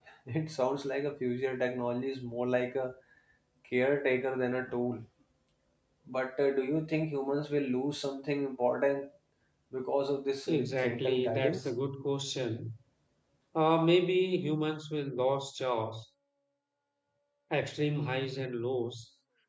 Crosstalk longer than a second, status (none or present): present